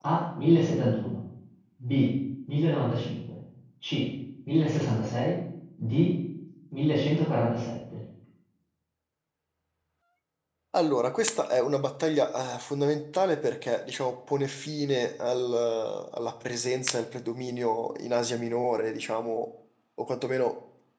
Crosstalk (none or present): none